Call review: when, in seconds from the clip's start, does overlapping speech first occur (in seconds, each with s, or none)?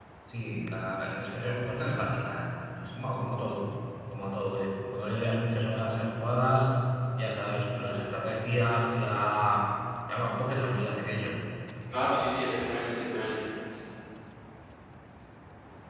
none